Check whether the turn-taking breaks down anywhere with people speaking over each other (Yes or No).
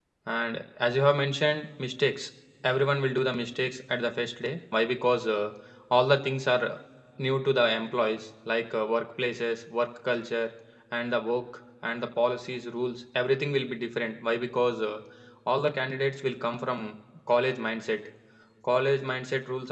No